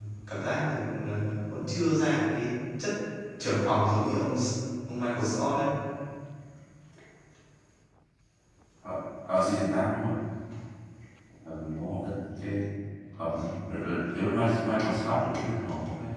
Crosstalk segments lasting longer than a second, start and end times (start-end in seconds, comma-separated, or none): none